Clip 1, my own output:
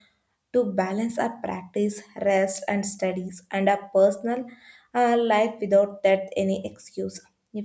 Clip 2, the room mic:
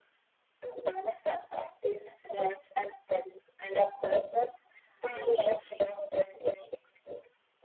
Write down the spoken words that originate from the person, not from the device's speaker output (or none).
philosophy,